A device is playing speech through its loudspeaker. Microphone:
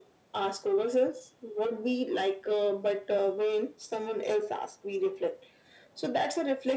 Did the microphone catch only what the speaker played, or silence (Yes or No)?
Yes